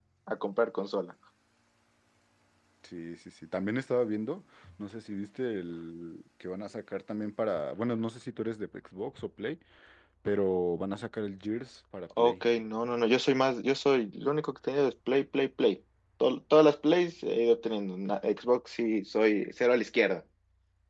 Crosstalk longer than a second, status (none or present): none